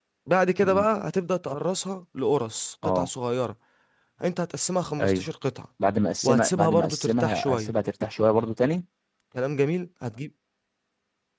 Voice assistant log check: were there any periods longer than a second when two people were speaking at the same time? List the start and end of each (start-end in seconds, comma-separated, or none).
6.2-7.7